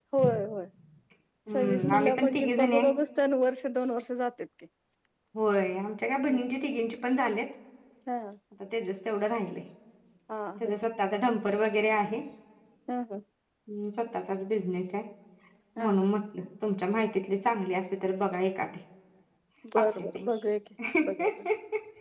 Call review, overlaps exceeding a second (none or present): present